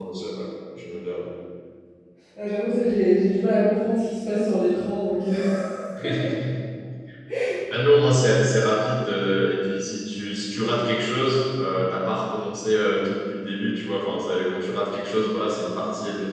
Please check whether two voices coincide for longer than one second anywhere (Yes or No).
No